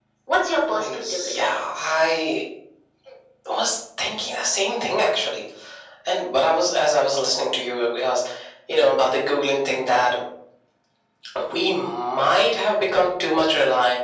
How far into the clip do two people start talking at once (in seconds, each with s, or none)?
0.7 s